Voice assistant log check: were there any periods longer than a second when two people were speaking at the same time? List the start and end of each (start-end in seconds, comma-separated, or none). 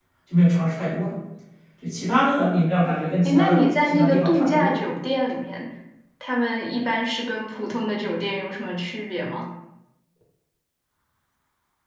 3.2-4.8